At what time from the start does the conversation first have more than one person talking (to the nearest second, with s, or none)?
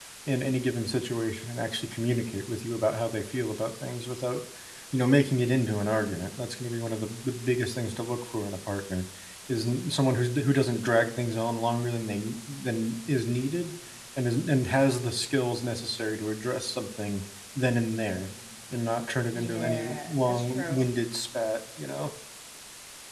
19 s